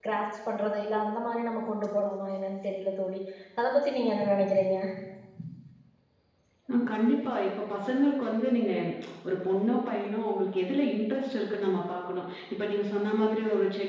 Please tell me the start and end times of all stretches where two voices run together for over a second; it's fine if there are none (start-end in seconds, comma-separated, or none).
none